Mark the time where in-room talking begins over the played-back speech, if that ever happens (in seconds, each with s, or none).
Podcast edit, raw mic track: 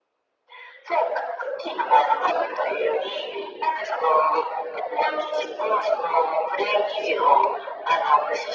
none